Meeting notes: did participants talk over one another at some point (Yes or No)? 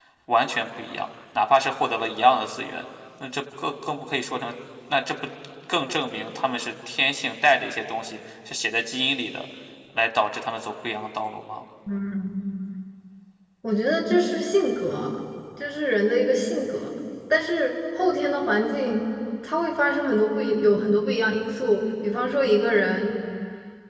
No